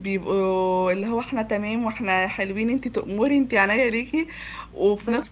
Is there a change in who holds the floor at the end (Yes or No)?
No